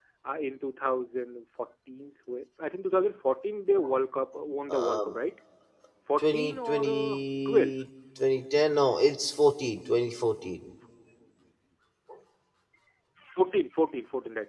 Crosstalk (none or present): present